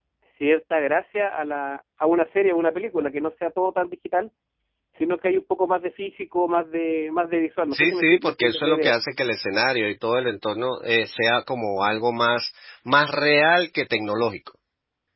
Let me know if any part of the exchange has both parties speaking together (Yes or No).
Yes